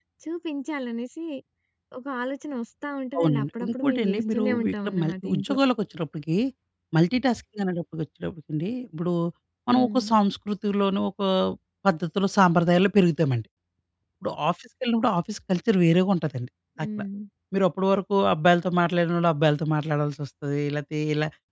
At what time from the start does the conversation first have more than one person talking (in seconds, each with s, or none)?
3.2 s